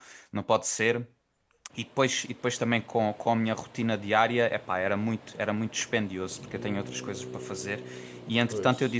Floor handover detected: No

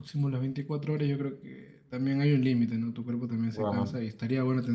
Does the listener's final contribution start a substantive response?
No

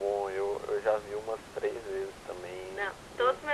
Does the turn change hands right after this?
Yes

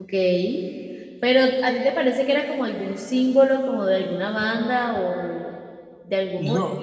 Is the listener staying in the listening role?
Yes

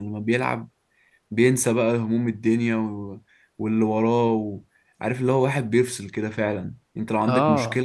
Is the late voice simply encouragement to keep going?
Yes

